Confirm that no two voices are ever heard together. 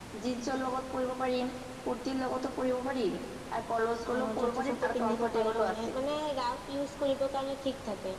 No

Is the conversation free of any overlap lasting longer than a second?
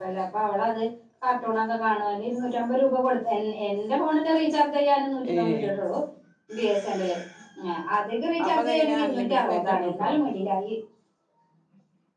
No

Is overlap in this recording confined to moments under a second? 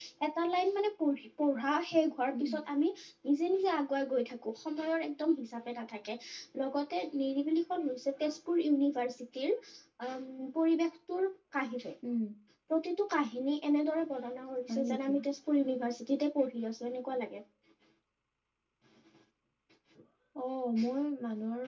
Yes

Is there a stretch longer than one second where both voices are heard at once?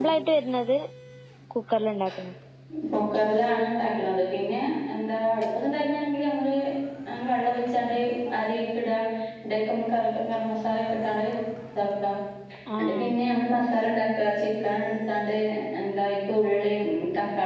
No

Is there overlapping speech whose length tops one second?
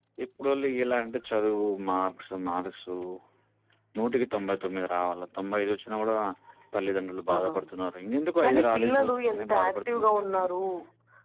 Yes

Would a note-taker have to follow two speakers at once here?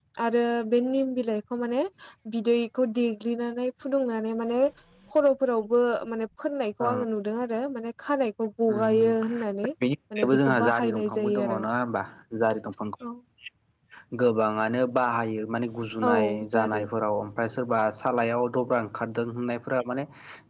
Yes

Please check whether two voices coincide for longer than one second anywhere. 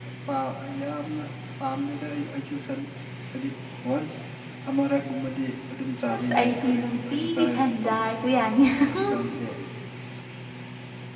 Yes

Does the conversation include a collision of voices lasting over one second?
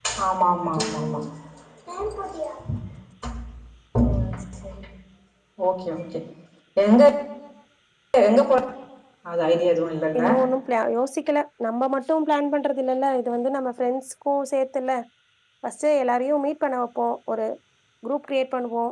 No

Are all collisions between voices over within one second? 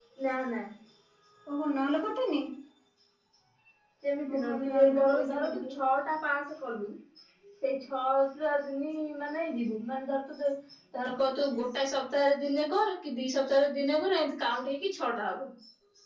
No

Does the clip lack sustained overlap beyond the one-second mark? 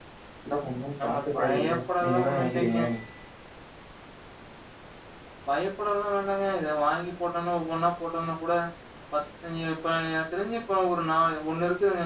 No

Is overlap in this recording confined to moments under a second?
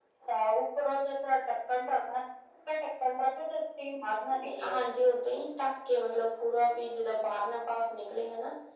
Yes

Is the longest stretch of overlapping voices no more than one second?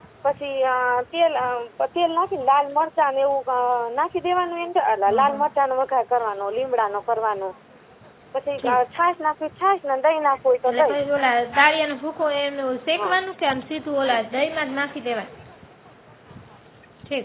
Yes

